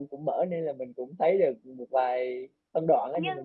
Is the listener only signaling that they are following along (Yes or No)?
No